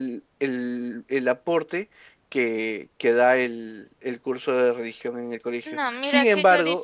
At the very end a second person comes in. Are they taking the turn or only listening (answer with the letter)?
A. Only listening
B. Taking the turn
B